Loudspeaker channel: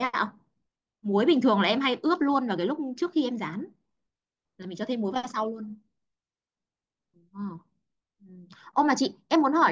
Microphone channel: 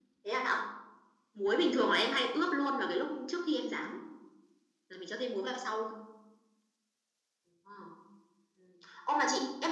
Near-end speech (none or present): none